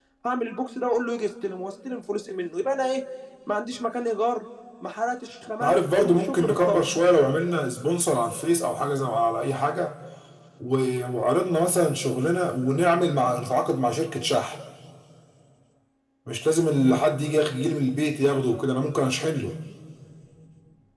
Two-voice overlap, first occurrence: 5.6 s

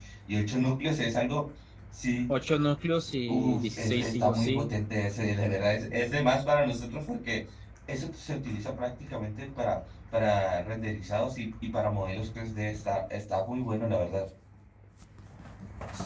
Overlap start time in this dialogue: 3.3 s

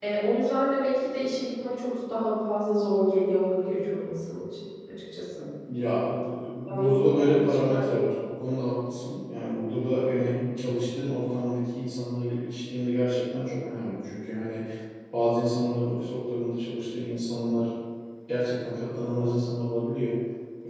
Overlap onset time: 6.7 s

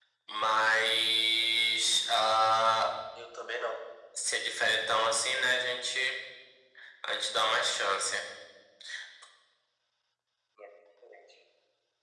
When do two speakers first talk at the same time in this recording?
none

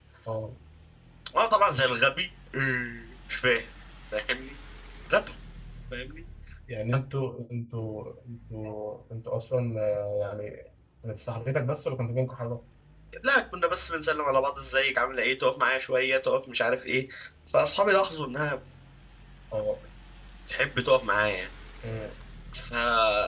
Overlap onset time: none

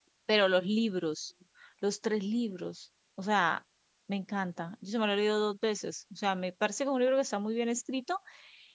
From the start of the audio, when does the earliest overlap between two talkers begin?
none

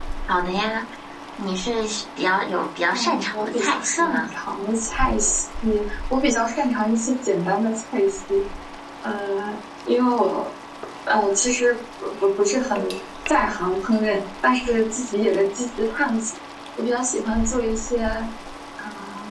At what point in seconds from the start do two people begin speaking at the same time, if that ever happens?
2.9 s

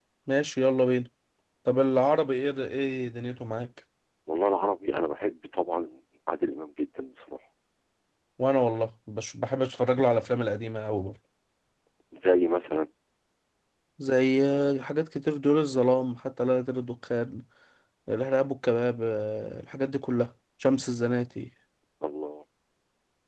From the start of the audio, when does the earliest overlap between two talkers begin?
none

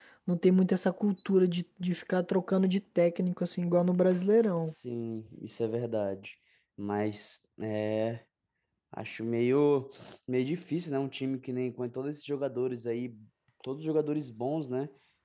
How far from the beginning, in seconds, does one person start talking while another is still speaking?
none

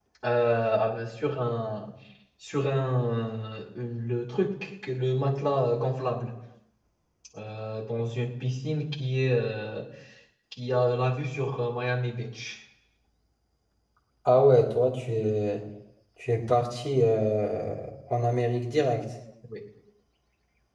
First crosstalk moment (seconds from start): none

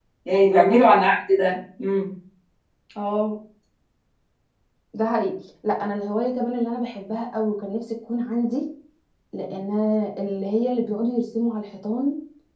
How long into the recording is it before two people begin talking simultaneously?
none

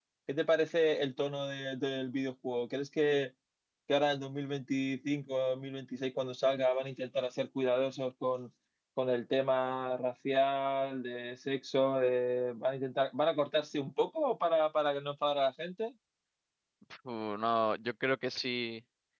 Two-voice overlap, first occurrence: none

